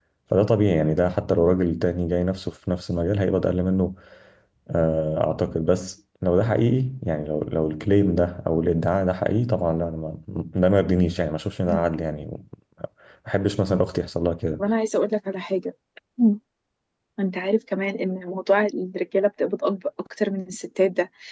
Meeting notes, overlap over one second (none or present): none